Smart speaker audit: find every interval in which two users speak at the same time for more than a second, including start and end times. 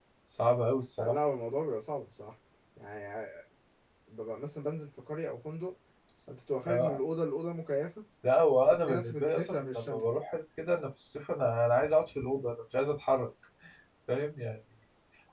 8.6-10.0

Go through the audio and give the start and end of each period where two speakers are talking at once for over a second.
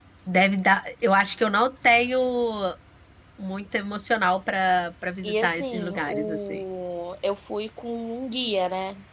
5.2-6.6

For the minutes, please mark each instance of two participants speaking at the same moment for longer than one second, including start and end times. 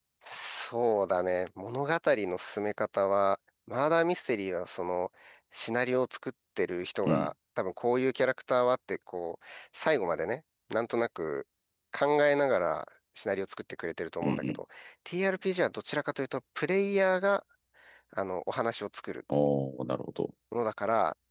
none

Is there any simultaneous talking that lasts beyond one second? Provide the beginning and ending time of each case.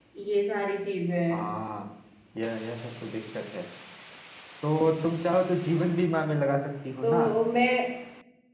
none

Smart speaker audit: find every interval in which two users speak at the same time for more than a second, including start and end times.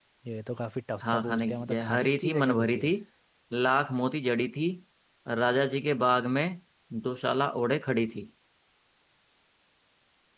1.0-2.9

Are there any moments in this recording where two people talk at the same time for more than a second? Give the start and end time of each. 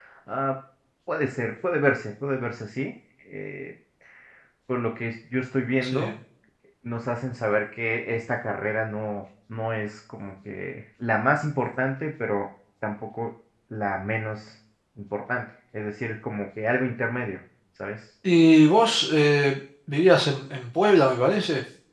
none

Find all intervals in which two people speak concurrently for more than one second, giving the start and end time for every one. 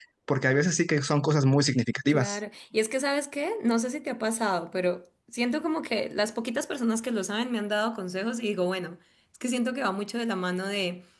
none

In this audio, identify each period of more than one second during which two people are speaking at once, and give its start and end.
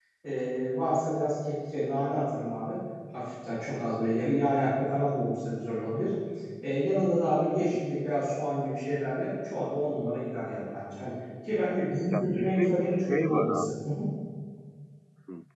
12.1-13.8

